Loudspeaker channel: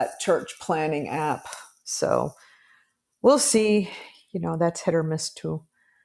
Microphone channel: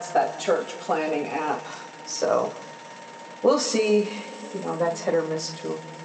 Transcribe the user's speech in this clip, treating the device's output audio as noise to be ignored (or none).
none